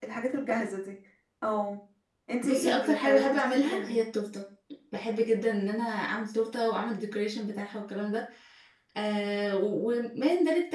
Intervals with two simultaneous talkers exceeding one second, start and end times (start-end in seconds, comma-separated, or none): 2.4-4.0